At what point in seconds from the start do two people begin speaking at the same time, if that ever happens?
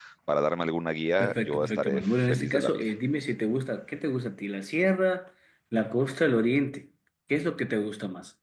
1.2 s

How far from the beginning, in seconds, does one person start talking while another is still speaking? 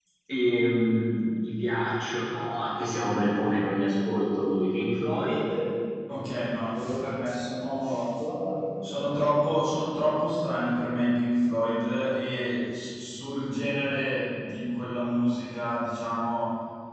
none

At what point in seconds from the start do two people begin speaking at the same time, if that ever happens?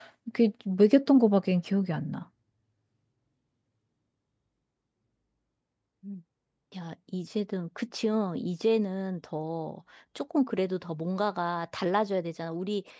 none

